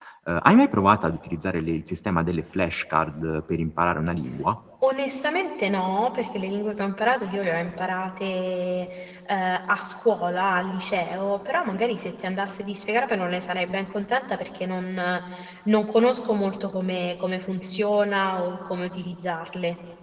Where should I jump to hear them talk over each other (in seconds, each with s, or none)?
none